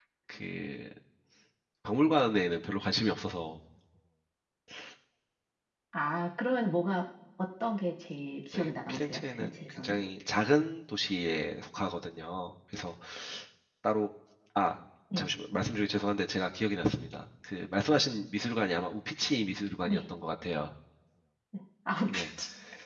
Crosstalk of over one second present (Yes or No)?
Yes